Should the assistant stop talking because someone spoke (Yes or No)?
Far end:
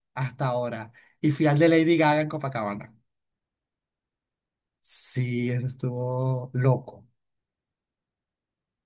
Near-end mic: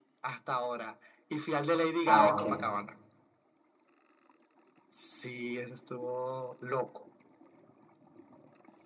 Yes